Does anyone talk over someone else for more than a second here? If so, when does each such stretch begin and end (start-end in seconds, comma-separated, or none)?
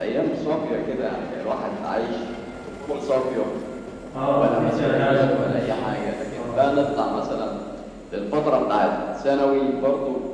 4.4-5.7